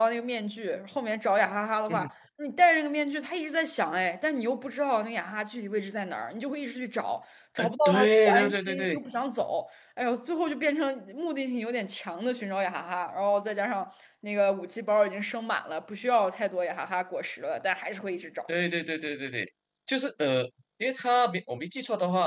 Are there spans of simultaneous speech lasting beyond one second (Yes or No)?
Yes